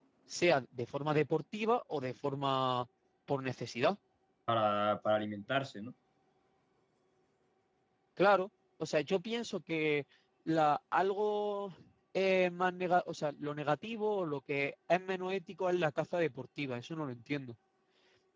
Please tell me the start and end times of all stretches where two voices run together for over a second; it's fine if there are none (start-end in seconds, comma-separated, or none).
none